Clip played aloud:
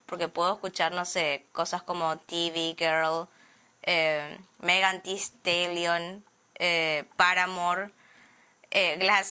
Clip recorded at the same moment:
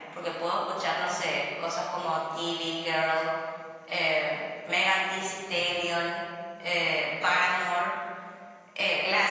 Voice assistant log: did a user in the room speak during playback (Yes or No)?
No